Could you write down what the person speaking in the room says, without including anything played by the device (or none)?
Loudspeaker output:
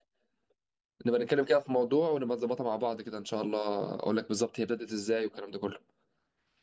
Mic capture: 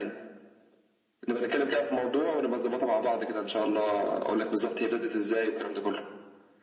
none